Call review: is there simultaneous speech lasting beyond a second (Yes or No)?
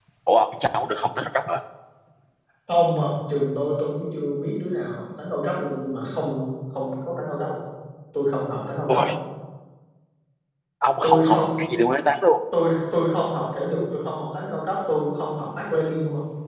No